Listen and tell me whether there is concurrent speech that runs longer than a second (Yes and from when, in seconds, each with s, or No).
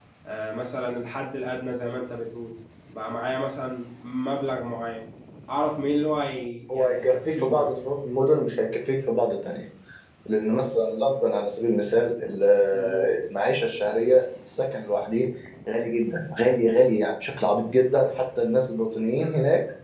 Yes, from 6.7 s